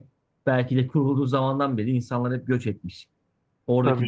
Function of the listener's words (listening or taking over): listening